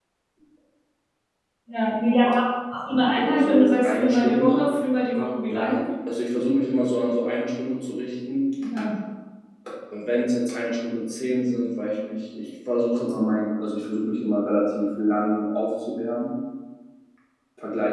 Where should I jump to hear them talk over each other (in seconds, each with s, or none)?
3.2 s